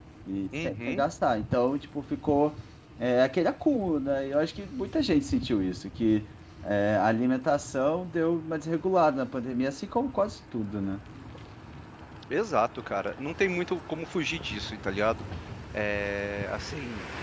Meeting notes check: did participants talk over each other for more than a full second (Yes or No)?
No